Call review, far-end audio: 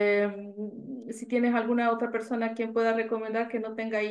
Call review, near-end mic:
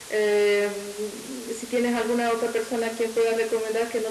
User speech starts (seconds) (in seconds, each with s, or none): none